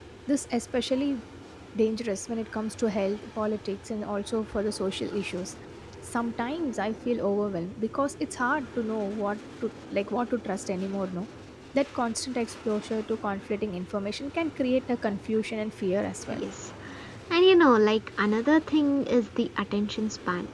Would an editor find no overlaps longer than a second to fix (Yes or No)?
Yes